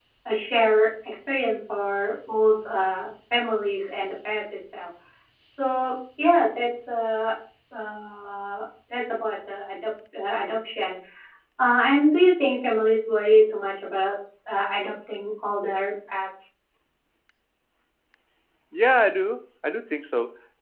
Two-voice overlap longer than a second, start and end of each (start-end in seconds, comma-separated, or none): none